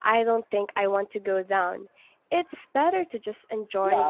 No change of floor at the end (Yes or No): No